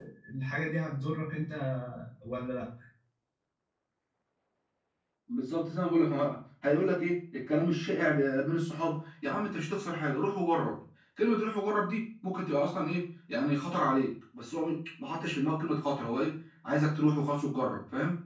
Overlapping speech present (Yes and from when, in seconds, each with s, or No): No